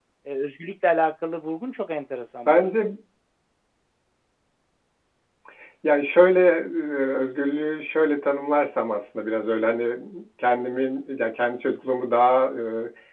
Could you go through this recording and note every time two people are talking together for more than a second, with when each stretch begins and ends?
none

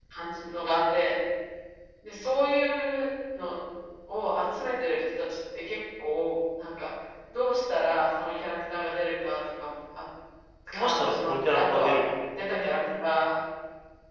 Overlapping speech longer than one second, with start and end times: 10.7-12.0

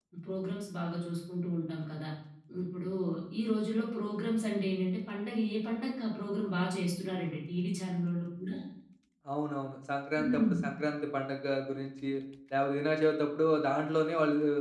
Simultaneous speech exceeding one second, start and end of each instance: none

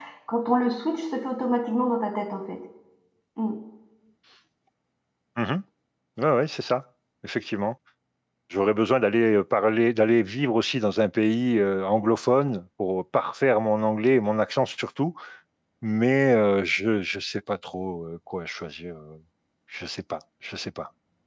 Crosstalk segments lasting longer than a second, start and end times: none

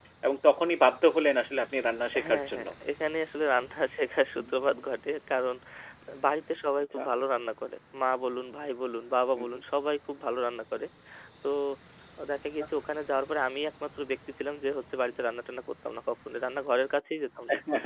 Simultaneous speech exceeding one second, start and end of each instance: none

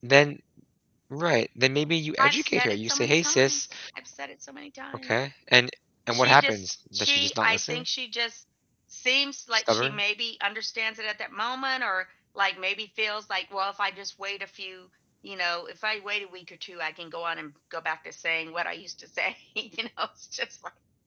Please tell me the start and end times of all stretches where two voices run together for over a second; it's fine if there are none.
2.2-3.7, 6.1-7.8

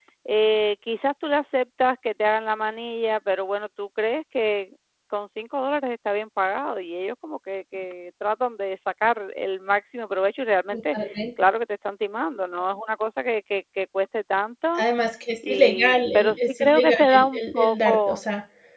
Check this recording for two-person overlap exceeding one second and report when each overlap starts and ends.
15.5-18.2

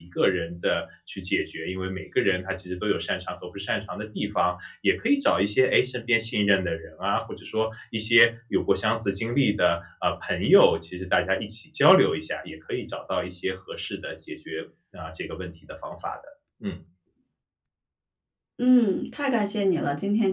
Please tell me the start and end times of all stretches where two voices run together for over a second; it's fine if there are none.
none

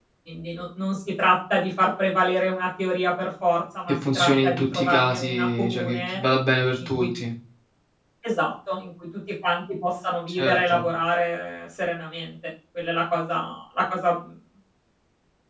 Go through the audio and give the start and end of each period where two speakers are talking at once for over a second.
3.9-6.2

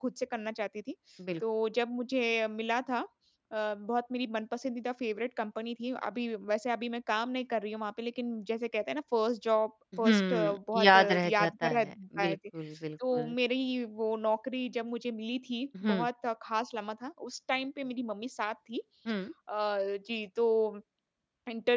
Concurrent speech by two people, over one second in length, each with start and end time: 10.0-12.4

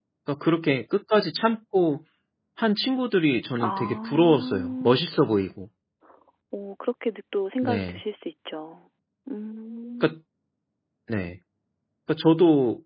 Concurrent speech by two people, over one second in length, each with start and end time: 3.6-5.0

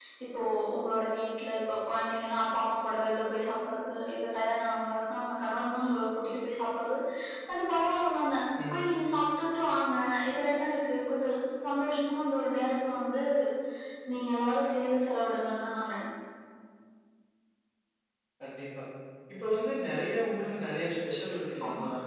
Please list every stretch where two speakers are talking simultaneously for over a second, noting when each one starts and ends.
none

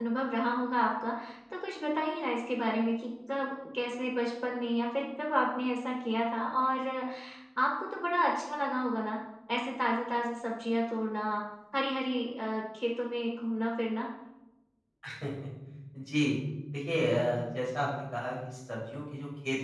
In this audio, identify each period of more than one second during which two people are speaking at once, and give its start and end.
none

